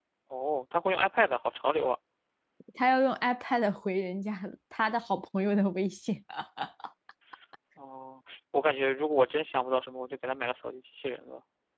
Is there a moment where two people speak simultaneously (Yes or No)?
No